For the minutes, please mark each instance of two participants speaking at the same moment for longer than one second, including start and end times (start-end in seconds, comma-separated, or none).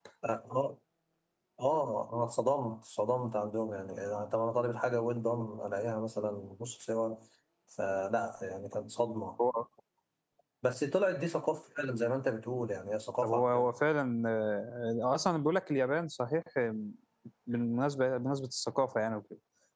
none